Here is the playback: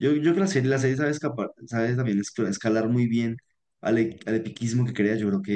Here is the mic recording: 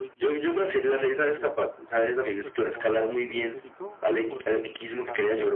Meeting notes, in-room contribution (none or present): present